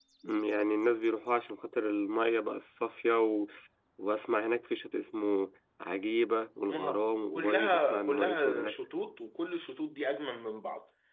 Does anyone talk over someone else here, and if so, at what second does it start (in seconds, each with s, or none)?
6.7 s